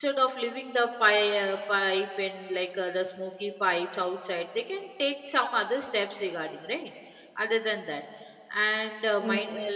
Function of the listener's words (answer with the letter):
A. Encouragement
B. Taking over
A